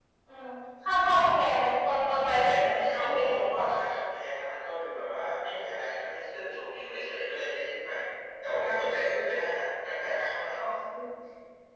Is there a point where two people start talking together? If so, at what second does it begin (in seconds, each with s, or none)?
2.2 s